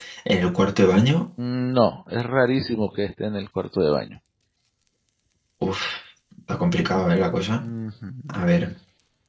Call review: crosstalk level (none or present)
none